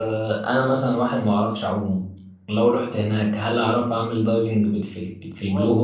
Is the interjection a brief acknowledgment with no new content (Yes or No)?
No